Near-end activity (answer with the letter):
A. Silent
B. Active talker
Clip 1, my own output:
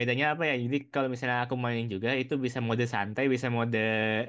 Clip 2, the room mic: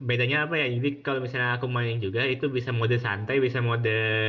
A